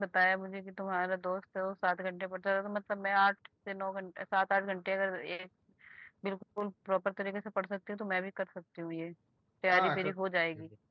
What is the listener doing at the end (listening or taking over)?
taking over